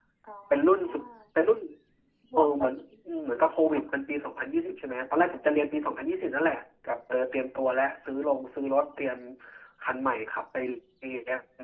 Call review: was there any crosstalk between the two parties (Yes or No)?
Yes